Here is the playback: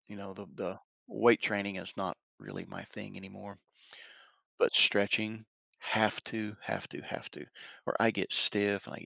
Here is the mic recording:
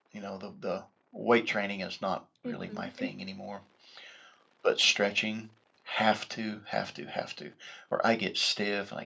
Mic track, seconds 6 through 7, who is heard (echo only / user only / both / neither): echo only